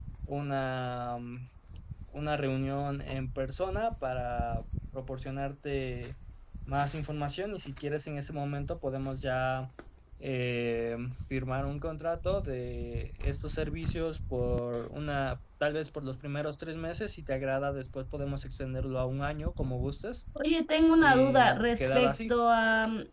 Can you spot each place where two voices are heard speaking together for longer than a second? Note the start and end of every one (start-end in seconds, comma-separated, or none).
21.0-22.4